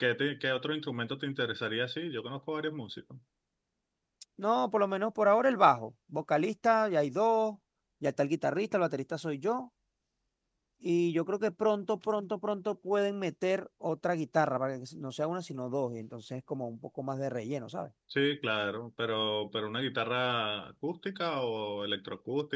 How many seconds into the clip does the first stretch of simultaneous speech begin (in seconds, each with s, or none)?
none